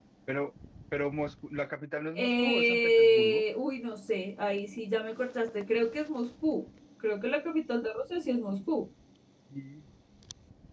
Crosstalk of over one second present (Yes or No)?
Yes